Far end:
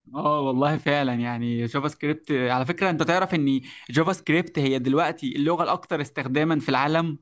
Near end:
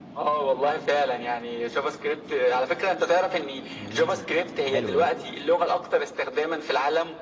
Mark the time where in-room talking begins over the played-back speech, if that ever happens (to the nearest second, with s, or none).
4 s